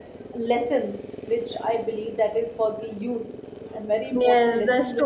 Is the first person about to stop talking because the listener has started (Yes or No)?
Yes